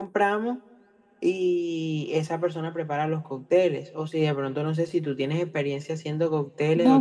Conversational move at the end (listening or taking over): taking over